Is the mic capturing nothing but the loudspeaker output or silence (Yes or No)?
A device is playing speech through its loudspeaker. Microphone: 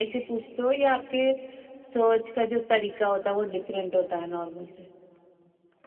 Yes